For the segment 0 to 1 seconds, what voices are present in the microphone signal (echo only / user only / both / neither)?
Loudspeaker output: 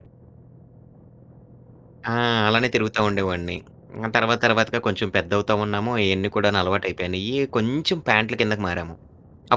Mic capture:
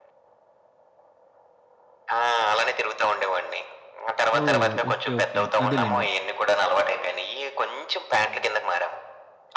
neither